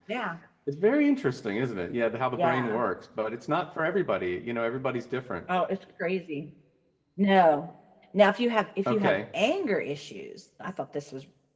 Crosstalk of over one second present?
No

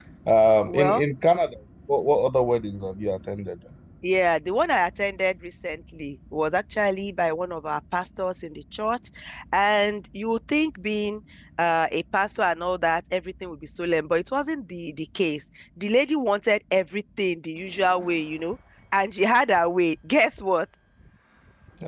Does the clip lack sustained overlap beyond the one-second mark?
Yes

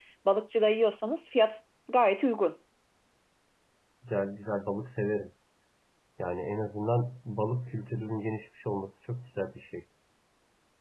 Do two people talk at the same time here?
No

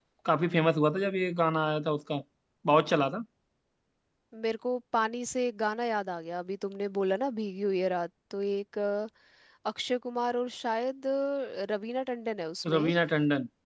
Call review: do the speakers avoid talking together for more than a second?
Yes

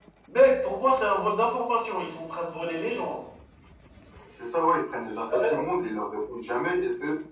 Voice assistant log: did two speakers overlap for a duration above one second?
No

